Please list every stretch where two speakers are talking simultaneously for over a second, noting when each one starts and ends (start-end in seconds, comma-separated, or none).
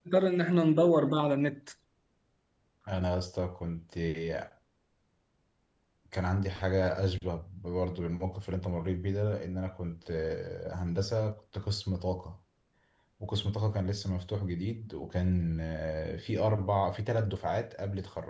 none